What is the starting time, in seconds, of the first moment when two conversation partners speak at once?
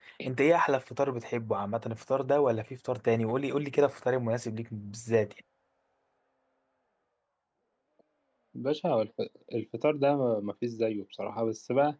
none

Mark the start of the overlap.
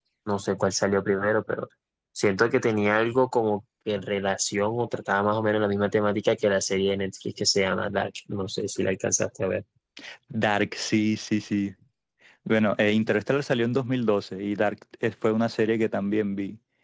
none

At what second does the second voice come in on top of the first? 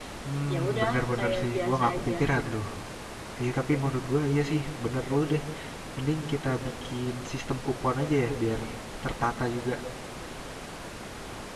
0.5 s

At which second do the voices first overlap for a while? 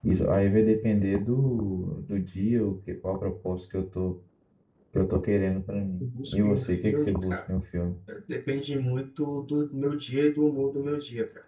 6.0 s

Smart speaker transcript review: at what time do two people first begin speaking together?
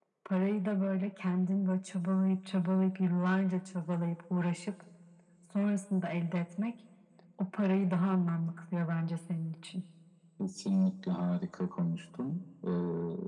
none

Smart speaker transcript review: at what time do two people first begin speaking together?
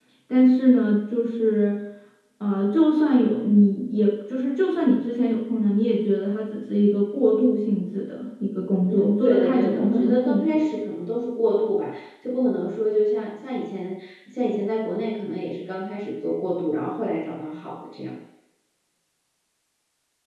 8.9 s

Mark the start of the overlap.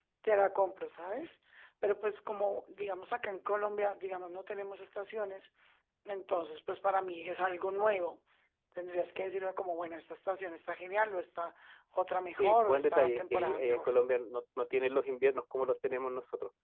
12.4 s

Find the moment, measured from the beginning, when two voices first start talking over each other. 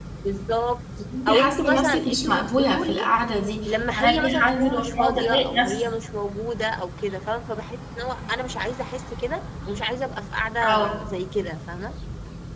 1.3 s

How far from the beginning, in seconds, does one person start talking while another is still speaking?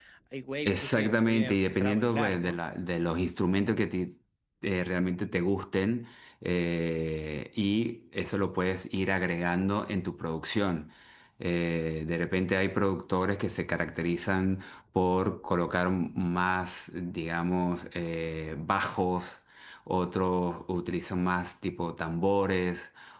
0.7 s

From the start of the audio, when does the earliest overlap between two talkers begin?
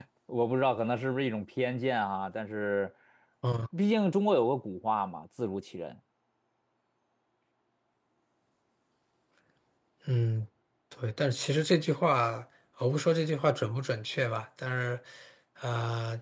none

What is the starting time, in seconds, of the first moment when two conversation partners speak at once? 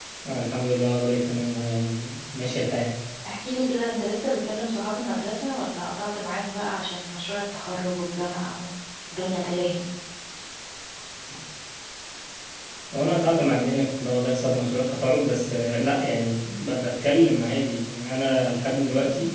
none

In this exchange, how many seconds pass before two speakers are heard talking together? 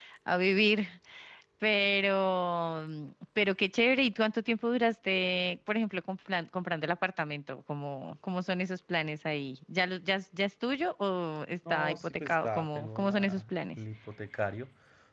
11.6 s

